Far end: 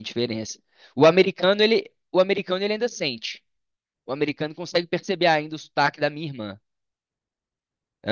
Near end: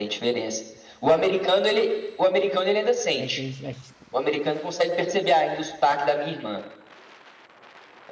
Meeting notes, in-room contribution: present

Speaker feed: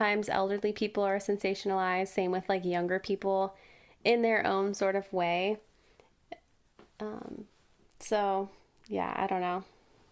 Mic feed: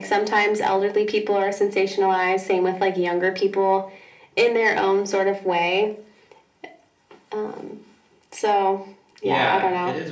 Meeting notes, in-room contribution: present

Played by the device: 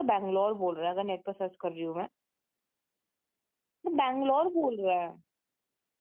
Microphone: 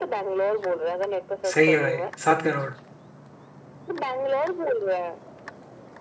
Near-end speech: present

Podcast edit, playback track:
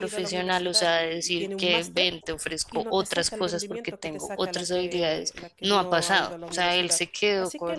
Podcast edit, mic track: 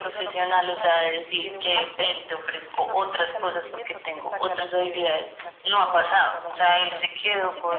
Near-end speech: none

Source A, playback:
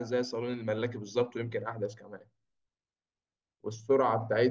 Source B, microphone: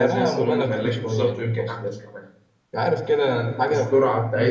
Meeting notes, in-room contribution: present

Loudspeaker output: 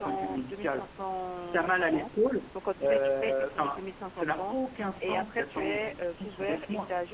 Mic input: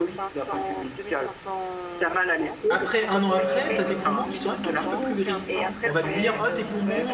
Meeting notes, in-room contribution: present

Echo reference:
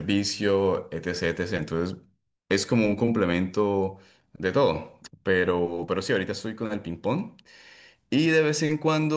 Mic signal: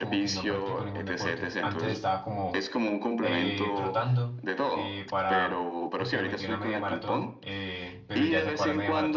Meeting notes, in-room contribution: present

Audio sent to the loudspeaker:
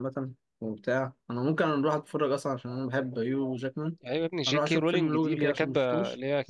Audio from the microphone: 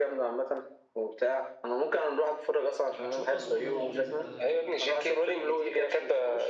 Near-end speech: present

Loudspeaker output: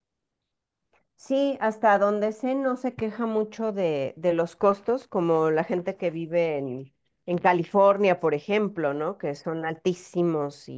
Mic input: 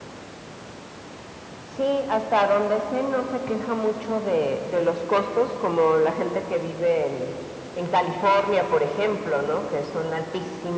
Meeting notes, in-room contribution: none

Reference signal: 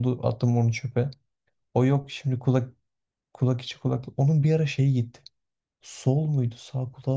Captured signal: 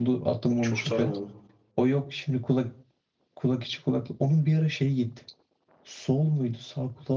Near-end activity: present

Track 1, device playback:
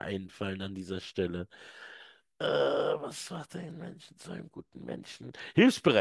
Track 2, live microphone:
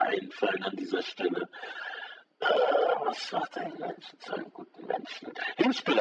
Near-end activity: none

